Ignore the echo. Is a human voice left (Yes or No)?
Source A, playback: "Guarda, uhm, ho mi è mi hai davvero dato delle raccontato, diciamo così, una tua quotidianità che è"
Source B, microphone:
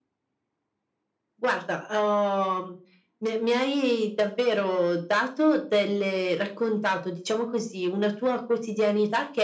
No